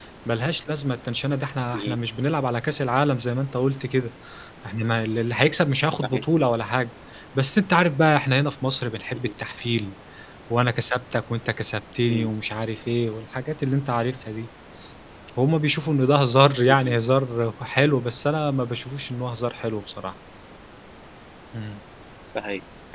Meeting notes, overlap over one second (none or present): none